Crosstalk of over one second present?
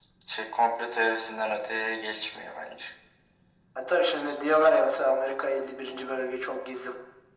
No

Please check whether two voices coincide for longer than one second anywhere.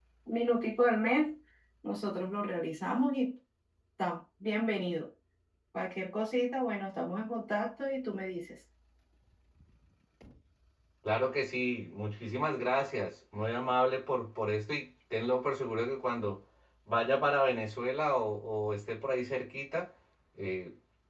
No

